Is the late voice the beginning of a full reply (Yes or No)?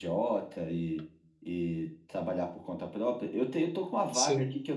No